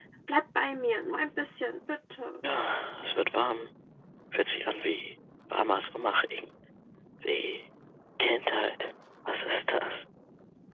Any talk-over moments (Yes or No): No